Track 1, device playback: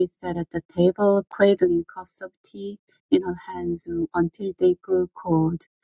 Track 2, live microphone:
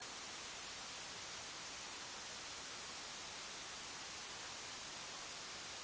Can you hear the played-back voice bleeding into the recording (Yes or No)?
No